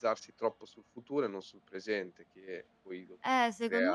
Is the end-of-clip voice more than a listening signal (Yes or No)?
Yes